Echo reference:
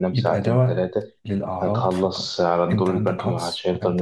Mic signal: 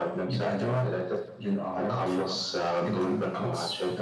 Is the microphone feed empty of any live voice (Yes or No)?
Yes